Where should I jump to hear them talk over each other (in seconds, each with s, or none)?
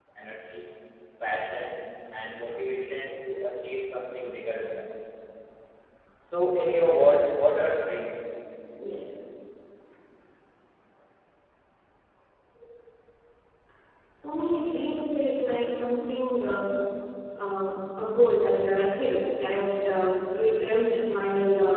none